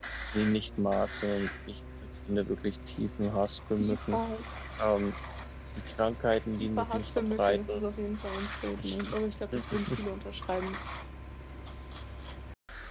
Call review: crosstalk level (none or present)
present